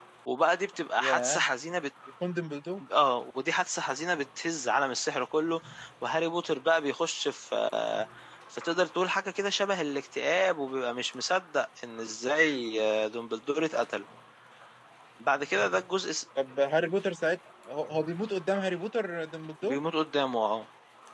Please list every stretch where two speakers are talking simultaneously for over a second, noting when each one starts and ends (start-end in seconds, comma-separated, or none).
none